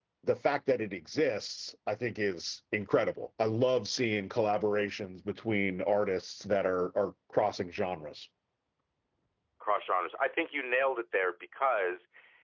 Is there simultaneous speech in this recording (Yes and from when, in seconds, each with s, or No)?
No